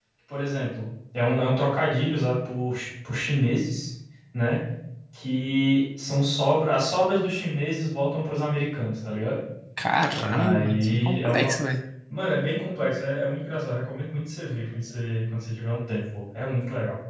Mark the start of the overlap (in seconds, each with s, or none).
10.3 s